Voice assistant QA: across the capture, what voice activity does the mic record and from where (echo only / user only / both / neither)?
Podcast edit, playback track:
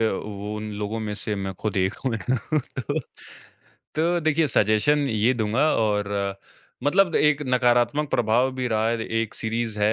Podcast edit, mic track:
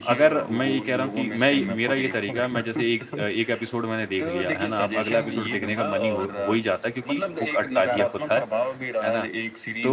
both